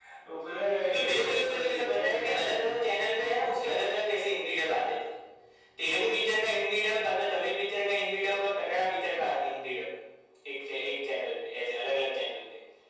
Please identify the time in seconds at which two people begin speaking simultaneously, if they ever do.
0.8 s

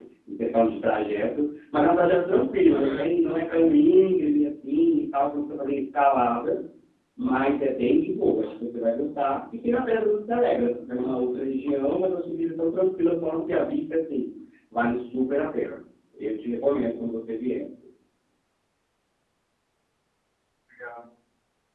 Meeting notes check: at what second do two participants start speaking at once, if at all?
2.5 s

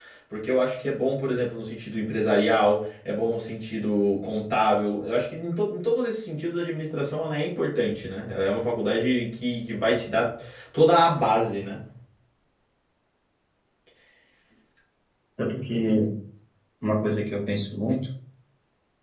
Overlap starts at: none

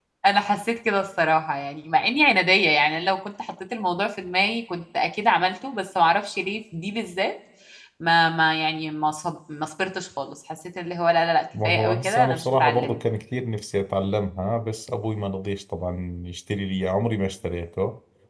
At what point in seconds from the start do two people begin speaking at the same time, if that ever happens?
11.5 s

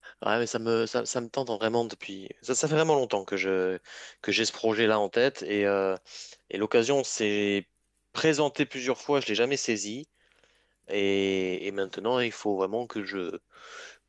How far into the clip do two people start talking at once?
none

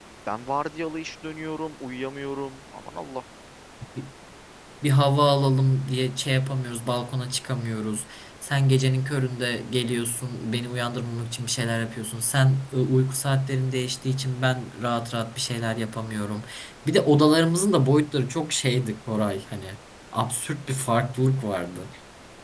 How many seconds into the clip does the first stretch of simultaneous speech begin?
none

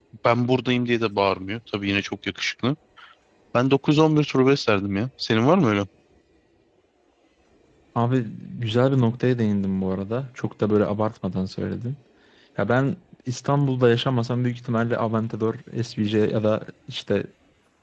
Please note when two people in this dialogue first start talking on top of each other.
none

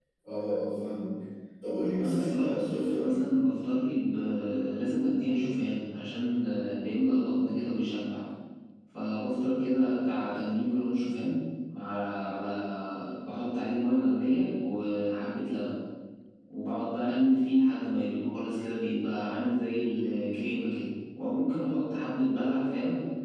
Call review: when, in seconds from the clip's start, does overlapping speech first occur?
2.0 s

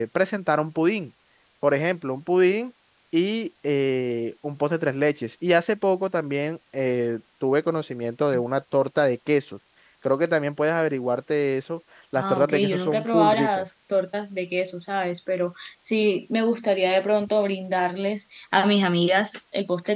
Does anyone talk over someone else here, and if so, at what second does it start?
12.2 s

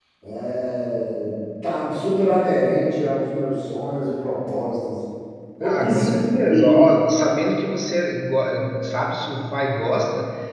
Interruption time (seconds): 5.6 s

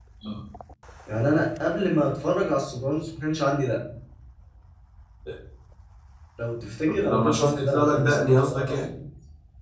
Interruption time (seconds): 6.9 s

